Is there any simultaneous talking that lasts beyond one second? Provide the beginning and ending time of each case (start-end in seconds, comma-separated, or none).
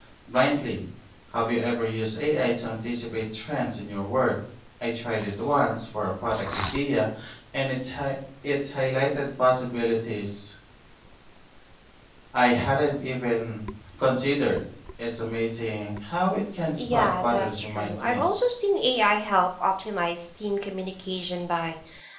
16.8-18.4